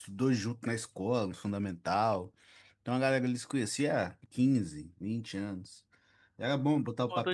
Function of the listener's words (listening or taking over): taking over